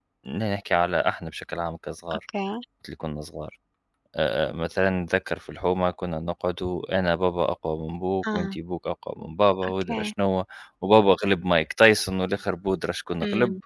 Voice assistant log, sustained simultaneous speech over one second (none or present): none